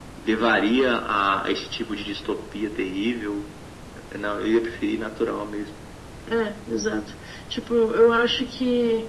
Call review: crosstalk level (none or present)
none